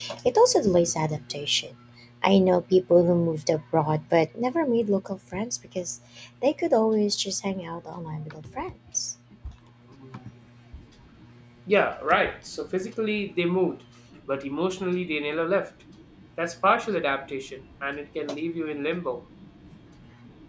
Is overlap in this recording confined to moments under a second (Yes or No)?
Yes